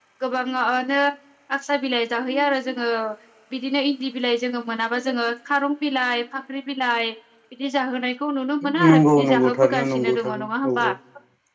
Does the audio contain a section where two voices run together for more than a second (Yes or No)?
Yes